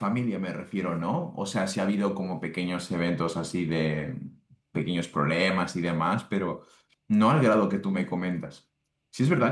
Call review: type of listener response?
listening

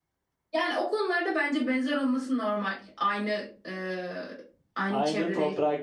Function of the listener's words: taking over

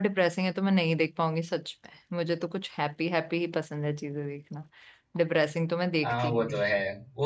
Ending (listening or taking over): taking over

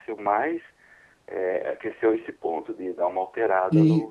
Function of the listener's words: taking over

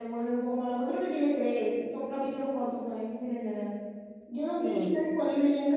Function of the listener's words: listening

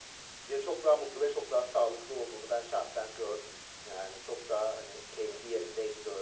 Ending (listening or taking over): listening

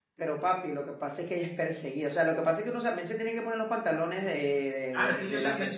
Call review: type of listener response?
taking over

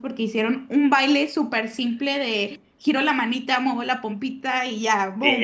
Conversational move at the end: taking over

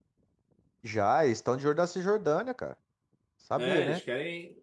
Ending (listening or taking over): taking over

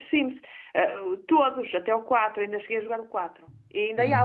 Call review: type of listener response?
listening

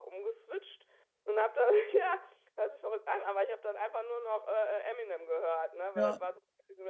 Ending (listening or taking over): listening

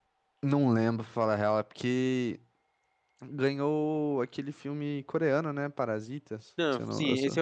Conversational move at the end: taking over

